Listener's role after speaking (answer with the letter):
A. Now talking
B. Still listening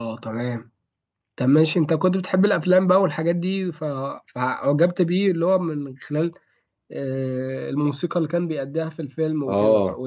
A